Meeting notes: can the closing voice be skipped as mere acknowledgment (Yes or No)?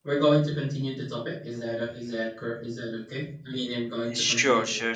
No